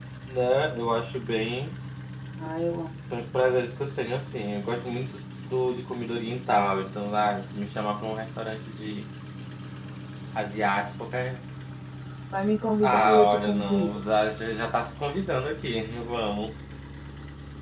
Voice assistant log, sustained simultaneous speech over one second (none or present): present